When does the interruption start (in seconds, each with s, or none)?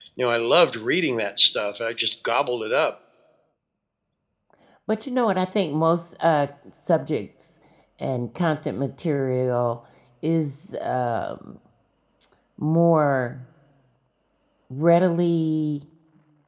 none